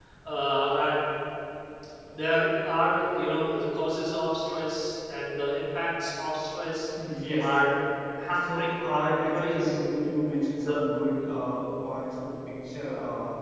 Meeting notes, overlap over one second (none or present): present